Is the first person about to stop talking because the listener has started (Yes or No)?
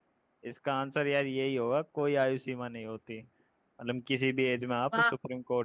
No